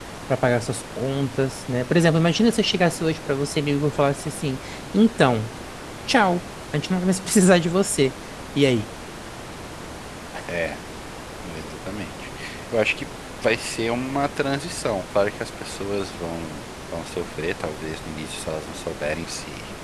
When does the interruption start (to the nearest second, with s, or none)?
none